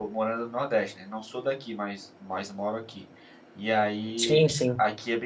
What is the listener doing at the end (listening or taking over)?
listening